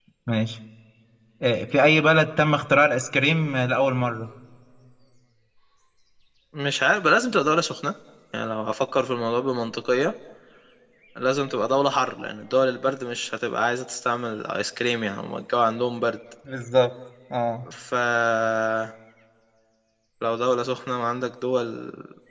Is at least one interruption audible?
No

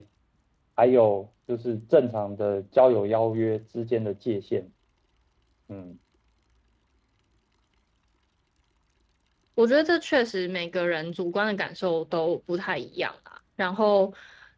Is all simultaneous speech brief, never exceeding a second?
Yes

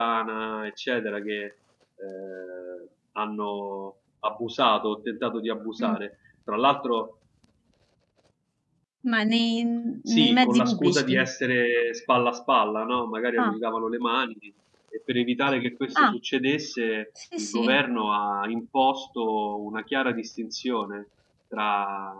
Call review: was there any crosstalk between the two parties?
Yes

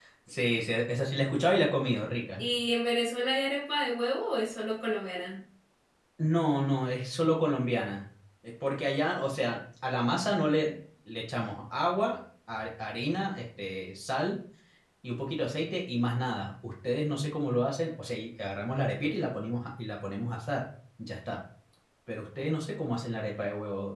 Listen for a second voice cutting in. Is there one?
No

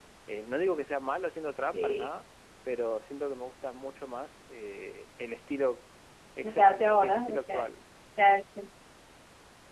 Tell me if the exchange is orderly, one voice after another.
No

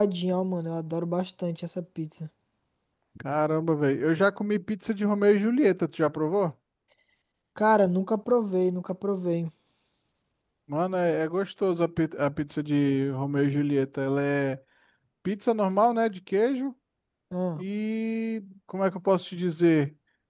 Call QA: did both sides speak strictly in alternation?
Yes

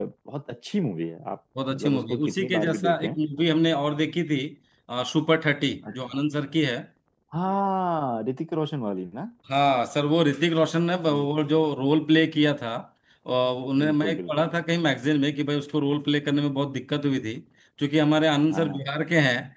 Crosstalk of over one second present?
Yes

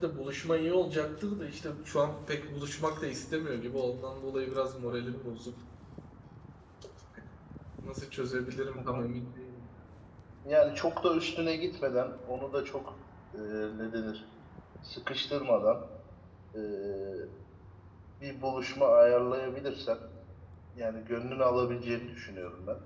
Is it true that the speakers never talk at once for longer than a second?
Yes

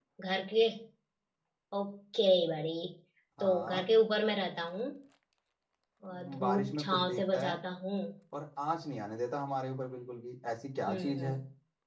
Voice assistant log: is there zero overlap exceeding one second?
No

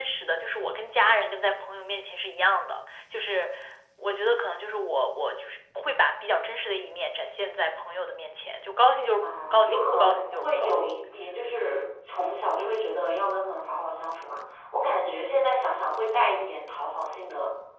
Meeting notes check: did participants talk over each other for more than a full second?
Yes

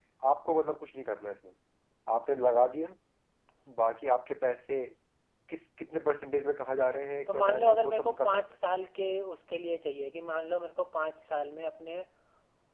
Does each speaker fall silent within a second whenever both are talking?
No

